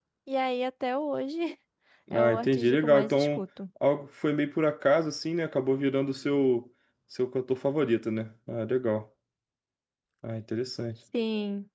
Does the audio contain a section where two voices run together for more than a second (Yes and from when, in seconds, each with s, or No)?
Yes, from 2.1 s